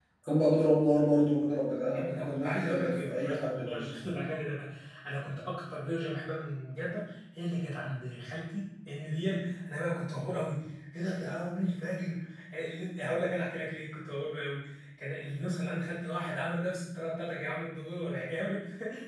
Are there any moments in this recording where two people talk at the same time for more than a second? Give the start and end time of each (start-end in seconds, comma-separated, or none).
1.9-3.9